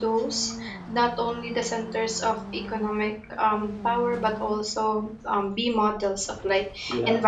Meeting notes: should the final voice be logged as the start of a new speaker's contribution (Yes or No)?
No